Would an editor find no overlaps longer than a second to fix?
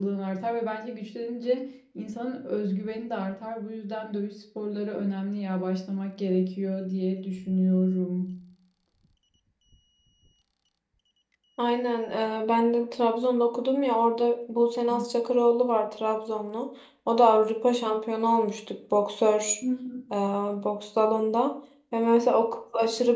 Yes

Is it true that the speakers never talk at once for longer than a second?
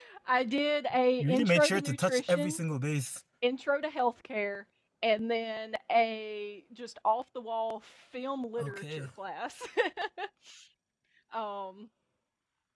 No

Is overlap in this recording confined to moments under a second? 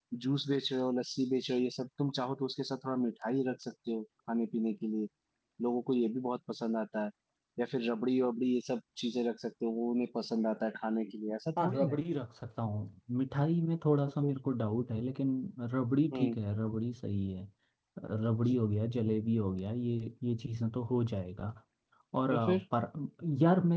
Yes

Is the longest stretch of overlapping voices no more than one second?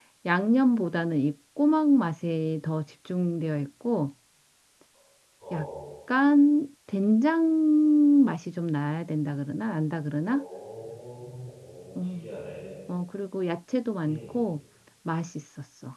Yes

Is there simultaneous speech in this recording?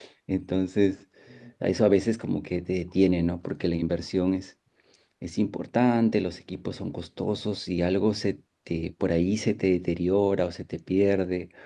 No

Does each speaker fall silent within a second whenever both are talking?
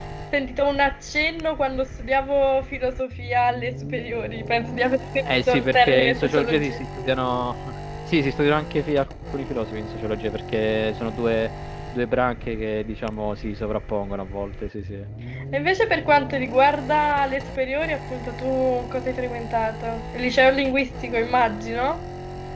No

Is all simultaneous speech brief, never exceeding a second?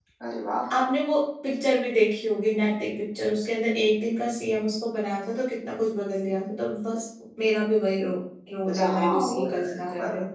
No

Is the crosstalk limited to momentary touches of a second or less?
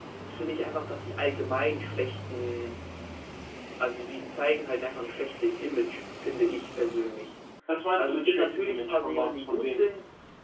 No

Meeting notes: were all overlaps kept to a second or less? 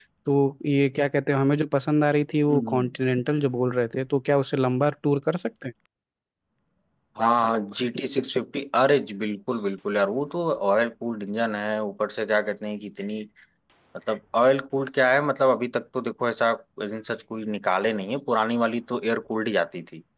Yes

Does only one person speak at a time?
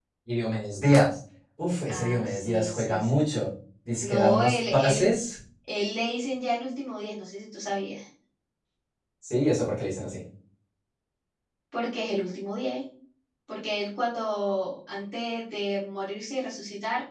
No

